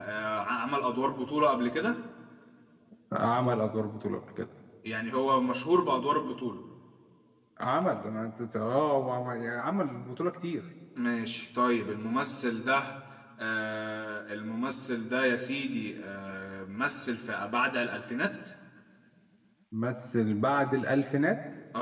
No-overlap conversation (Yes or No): Yes